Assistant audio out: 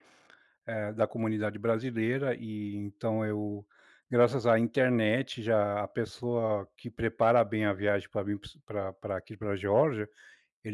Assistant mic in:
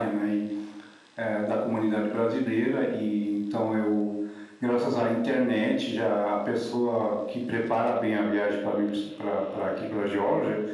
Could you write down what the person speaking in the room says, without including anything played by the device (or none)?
none